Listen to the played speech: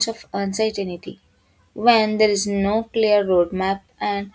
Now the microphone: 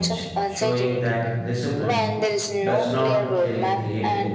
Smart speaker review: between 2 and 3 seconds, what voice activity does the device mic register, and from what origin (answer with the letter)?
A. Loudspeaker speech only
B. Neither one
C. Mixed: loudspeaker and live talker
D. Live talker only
C